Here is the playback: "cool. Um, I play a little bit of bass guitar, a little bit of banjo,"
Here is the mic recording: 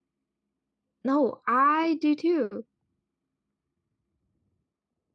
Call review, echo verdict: none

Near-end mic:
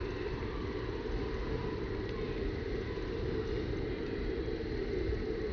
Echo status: none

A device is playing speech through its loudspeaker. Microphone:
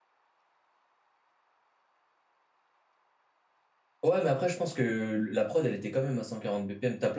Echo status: none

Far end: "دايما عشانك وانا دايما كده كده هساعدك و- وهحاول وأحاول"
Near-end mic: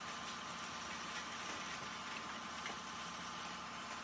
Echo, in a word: none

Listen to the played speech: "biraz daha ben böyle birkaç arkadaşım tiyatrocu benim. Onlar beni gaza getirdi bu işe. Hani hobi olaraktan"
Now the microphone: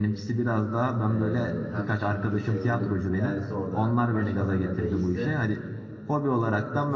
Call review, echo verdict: present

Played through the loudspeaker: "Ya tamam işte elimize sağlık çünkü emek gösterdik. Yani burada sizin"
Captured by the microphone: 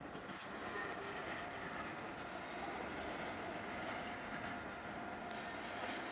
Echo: none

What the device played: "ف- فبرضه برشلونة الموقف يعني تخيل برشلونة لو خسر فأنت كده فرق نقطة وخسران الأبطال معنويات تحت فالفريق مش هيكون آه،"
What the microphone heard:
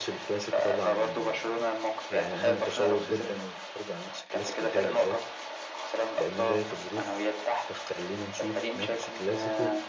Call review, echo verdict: present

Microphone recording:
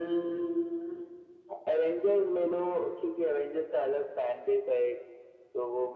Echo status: present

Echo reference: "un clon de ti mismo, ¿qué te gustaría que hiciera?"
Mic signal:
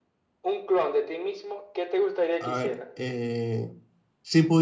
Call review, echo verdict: present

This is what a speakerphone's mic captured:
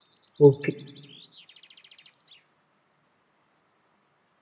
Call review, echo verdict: none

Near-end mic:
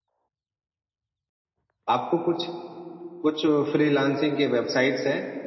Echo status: none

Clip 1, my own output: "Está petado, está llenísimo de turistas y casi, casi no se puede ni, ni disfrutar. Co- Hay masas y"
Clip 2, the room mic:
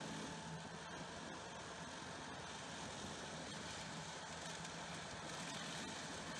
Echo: none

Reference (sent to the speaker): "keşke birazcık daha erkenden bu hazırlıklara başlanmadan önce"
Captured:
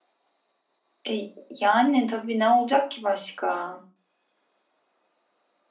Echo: none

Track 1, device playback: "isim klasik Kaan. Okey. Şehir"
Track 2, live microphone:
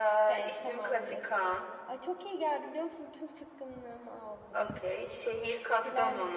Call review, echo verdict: present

